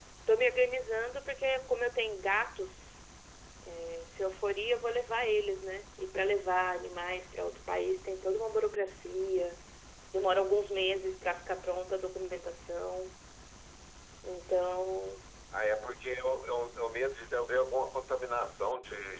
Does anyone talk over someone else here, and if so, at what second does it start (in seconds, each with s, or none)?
none